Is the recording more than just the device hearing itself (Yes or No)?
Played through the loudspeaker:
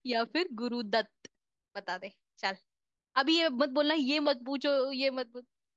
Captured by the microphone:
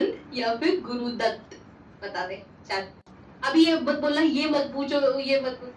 No